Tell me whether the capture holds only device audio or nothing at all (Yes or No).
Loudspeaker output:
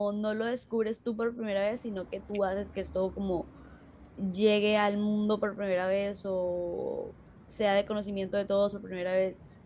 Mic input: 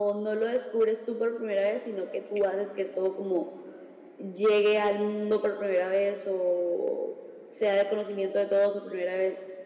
Yes